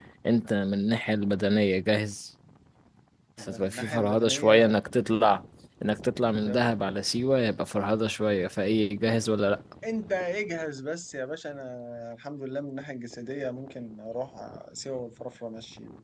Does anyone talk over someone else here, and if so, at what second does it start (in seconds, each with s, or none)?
3.4 s